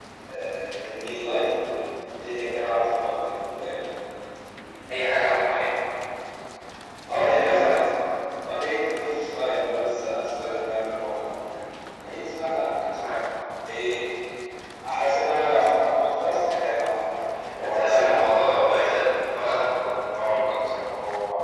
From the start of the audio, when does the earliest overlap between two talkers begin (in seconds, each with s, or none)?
17.5 s